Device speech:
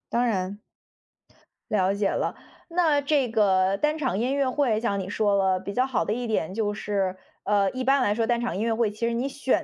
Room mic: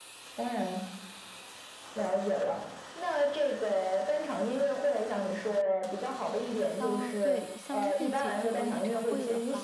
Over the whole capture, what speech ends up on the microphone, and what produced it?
both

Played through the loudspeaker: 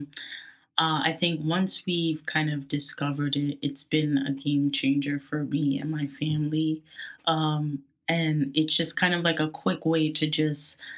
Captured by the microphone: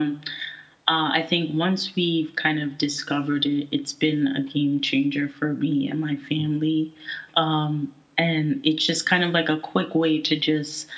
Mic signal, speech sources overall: echo only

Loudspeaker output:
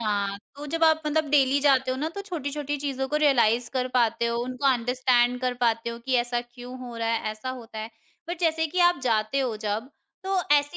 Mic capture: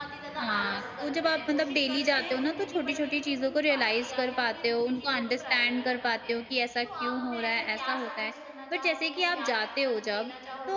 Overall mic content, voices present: both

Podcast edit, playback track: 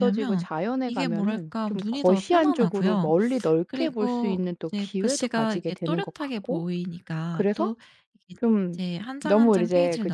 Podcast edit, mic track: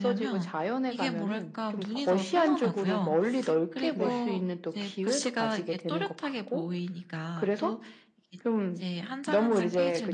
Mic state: both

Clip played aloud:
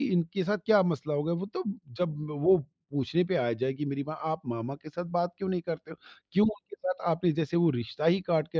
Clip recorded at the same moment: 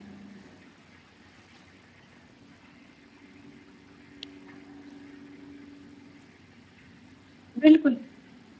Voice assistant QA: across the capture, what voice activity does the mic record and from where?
user only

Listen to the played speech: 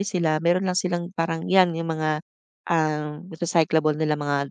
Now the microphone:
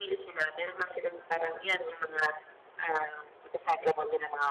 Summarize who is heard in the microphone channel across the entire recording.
echo only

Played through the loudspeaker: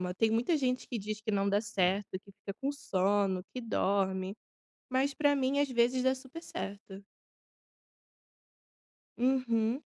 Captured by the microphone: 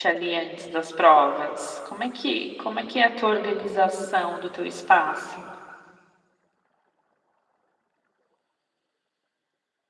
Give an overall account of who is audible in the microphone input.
user only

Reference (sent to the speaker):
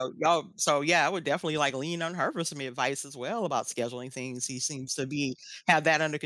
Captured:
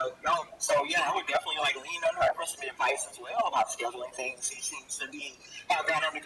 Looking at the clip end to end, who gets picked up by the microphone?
echo only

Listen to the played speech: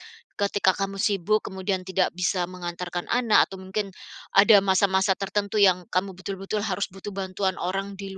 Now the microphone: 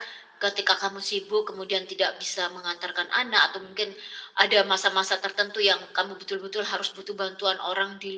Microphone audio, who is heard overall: echo only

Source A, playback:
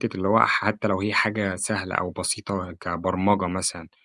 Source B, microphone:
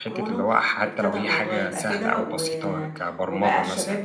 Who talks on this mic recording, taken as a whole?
both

